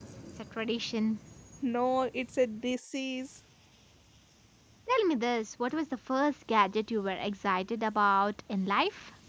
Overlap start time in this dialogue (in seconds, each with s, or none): none